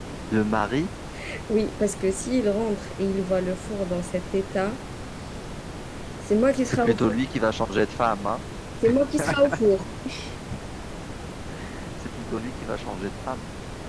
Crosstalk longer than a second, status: none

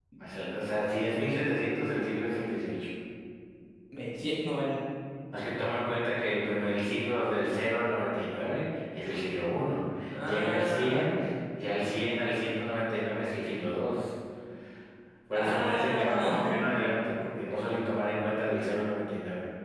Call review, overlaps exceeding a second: present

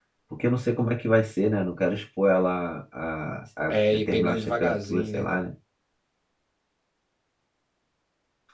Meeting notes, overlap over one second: present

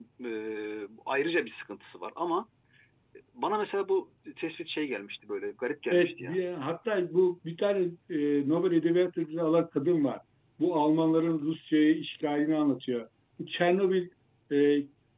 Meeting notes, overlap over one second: none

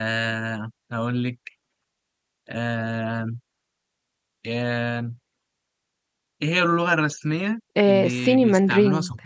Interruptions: present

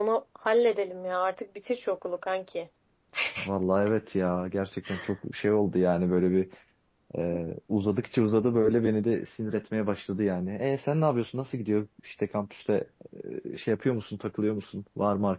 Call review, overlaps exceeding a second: none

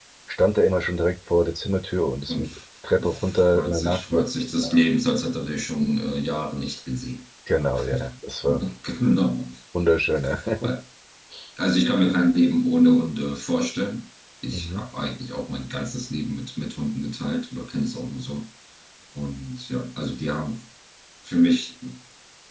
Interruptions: present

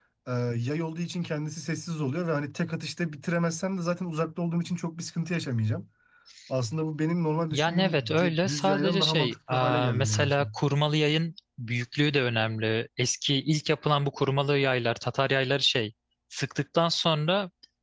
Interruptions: present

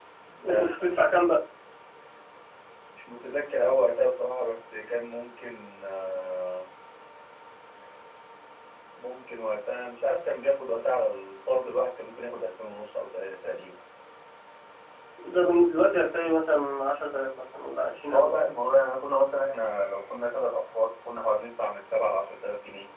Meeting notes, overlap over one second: none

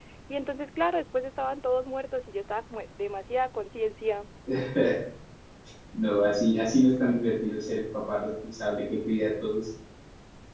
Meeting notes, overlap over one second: none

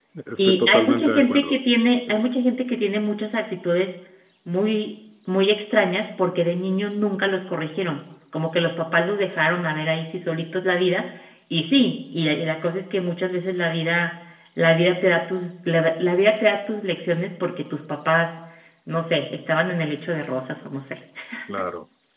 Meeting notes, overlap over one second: present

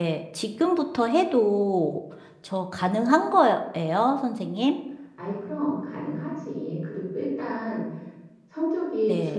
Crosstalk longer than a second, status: none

